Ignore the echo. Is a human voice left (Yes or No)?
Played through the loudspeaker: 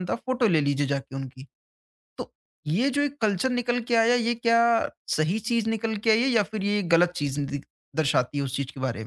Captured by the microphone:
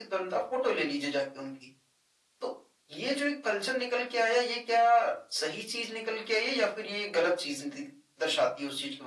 No